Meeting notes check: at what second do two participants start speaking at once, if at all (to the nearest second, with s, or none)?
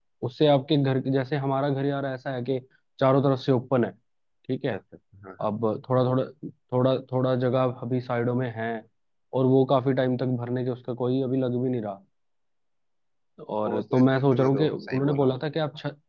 14 s